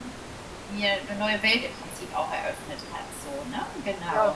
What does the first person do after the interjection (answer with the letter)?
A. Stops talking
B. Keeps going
A